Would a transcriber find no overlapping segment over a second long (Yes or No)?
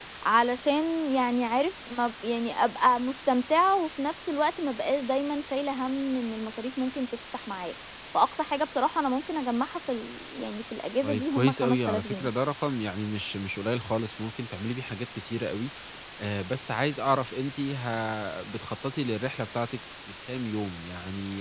No